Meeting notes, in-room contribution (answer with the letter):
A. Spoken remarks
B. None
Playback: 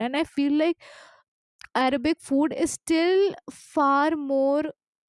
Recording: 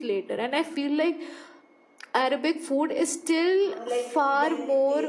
A